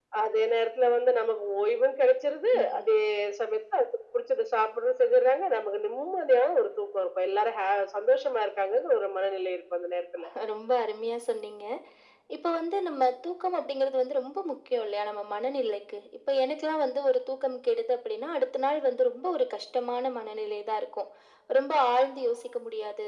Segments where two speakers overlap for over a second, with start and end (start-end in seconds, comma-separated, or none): none